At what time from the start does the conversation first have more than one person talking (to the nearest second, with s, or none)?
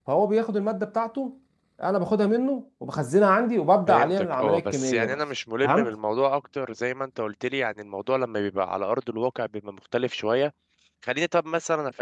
4 s